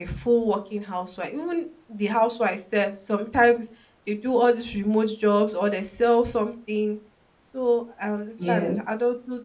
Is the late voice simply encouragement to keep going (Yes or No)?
Yes